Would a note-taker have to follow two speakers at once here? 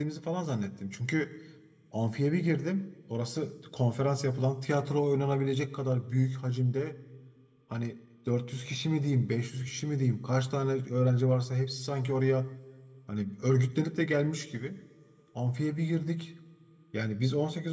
No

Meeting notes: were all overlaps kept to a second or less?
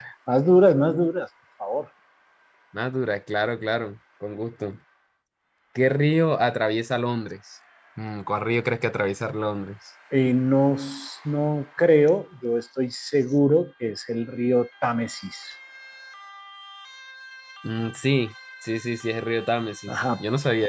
Yes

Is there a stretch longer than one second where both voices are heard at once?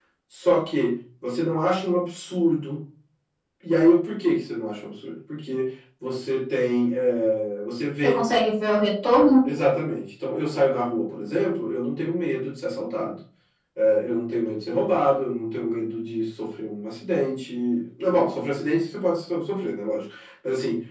No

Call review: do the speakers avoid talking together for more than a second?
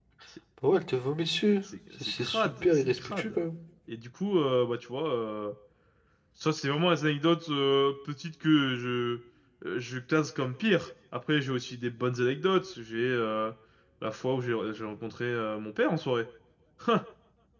No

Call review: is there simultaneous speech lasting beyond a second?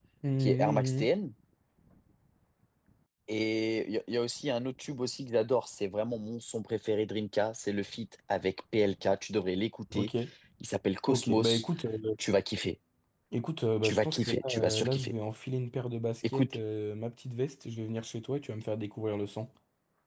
Yes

